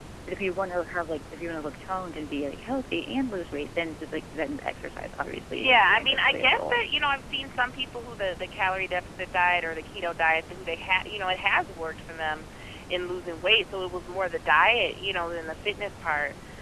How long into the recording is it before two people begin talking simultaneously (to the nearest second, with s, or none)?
6 s